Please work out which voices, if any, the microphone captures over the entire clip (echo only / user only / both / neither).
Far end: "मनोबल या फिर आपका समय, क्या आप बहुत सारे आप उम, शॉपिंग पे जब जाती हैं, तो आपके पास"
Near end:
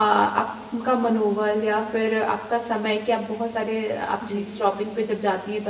both